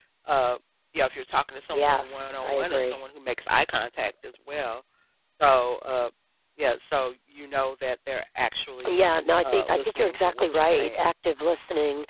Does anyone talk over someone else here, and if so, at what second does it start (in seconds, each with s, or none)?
1.7 s